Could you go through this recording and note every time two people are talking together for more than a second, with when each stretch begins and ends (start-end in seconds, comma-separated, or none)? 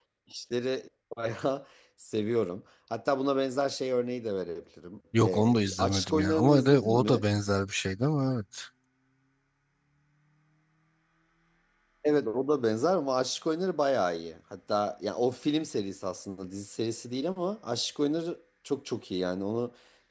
5.2-7.2